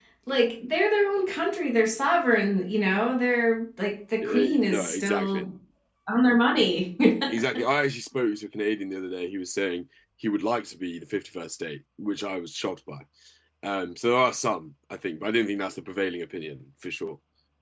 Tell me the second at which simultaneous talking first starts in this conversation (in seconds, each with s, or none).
4.2 s